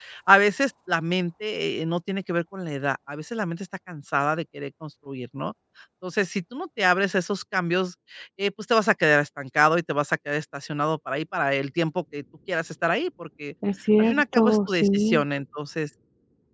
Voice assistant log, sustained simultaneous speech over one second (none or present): present